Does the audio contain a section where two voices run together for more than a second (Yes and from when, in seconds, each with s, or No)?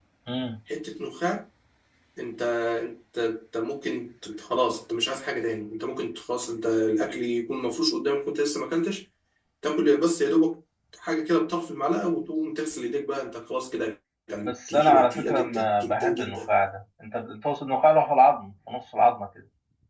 Yes, from 14.4 s